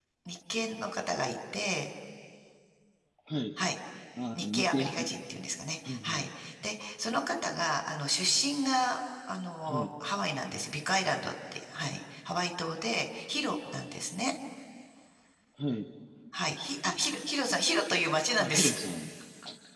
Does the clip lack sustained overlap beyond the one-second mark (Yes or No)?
Yes